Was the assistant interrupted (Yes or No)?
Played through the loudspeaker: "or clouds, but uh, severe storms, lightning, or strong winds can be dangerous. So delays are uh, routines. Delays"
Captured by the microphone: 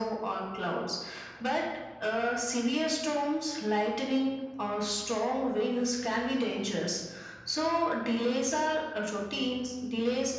No